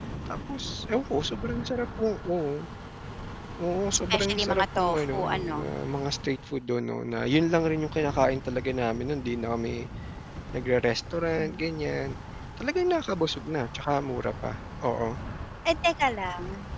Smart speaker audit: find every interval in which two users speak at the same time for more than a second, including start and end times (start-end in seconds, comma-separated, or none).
4.1-5.7